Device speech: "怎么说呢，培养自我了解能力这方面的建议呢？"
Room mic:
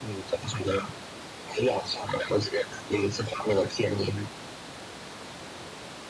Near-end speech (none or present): none